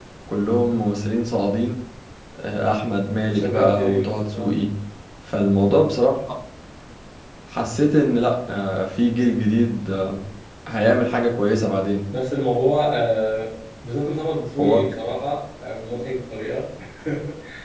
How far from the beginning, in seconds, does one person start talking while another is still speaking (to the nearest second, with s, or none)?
3 s